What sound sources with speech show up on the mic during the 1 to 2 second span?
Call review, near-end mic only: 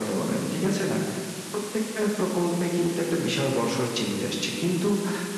echo only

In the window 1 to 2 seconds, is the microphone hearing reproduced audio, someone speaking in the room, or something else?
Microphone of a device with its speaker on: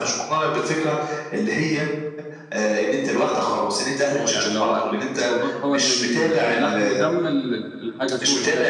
echo only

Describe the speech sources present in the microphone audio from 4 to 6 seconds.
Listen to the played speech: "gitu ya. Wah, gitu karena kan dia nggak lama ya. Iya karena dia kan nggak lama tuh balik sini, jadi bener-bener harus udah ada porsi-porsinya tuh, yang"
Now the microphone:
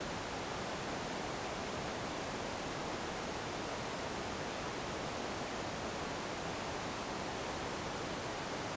neither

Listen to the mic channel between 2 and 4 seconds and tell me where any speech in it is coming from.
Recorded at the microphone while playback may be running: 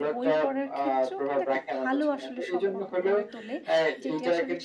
both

